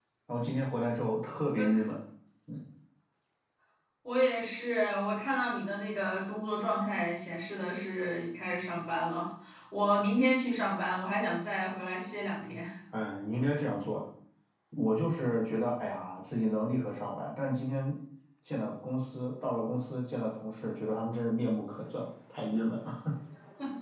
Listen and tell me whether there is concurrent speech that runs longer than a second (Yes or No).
No